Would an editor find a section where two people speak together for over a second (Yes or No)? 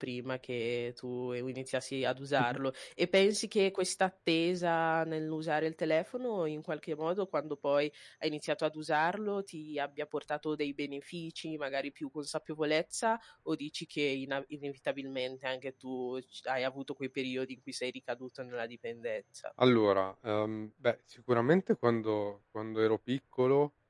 No